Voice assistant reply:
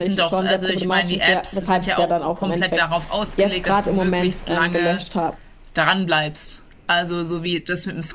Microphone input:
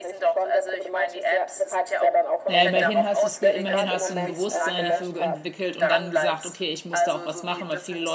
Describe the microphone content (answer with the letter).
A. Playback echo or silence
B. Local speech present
B